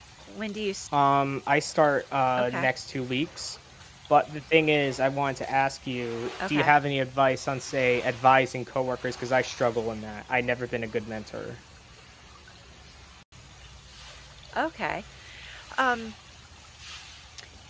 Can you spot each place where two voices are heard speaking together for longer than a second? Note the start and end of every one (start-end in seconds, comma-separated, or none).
none